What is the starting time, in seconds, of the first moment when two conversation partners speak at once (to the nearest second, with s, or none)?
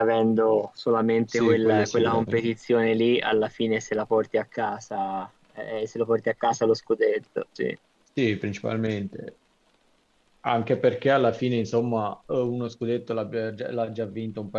1 s